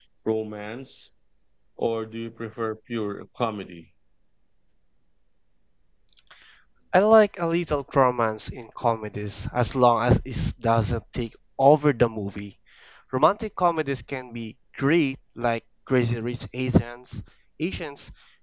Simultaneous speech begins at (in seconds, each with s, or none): none